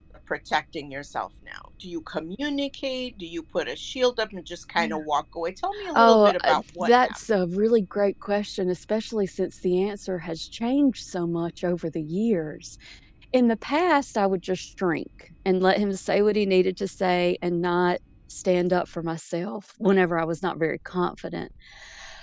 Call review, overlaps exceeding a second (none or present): present